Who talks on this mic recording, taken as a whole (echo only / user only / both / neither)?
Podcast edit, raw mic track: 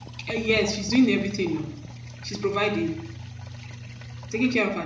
user only